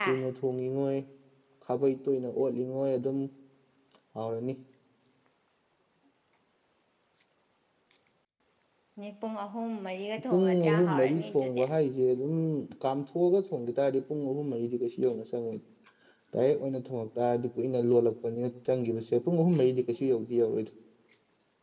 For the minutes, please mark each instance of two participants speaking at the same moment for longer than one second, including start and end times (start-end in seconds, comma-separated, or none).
10.3-11.6